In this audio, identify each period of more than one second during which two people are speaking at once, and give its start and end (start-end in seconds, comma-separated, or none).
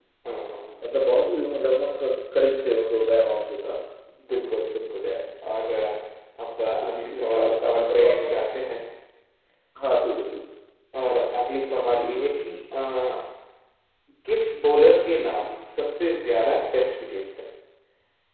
6.8-8.3